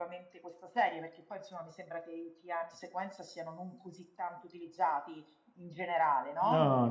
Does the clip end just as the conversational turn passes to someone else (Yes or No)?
Yes